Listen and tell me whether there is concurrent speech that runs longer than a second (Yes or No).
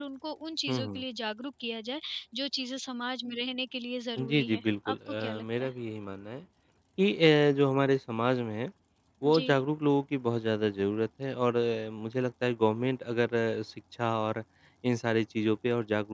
Yes